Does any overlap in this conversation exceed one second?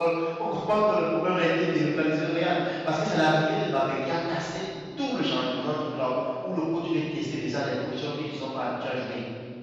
No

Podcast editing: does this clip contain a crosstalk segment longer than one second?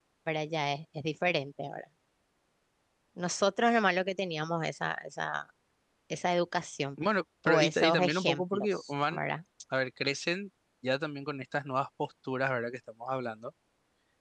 Yes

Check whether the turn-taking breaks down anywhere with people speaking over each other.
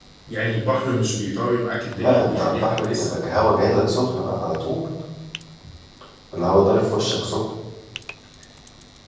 Yes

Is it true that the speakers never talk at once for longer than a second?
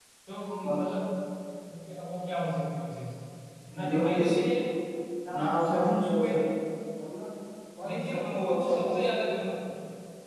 No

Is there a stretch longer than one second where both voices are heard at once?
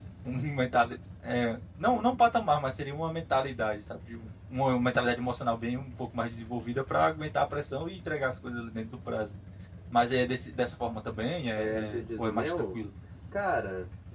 Yes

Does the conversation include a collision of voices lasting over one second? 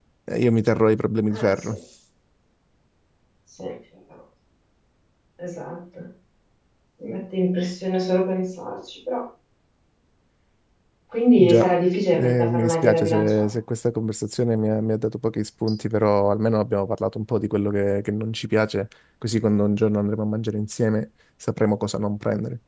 Yes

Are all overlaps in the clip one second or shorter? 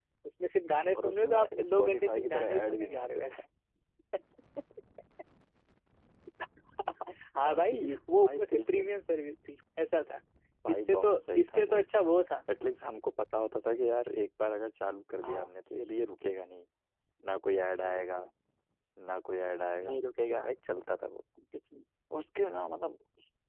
No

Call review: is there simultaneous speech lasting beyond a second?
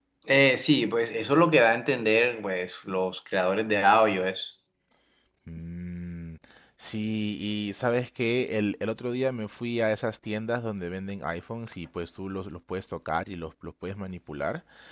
No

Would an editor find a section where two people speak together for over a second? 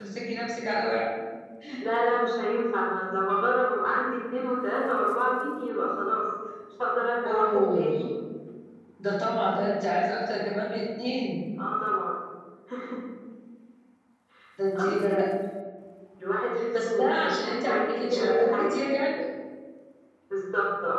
Yes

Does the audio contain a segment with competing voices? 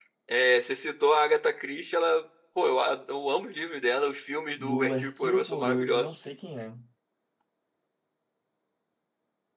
Yes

